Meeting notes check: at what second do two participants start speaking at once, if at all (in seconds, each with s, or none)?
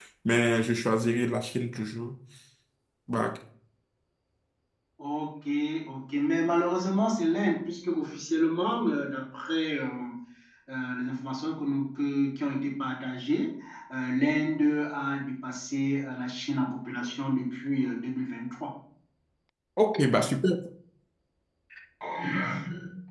none